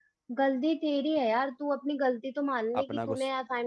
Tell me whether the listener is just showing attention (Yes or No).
Yes